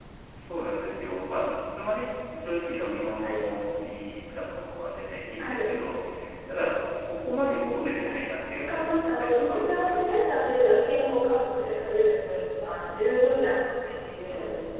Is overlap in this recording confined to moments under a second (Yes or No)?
No